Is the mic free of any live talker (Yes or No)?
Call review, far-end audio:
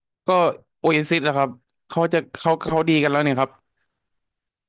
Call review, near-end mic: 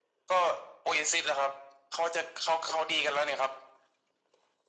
Yes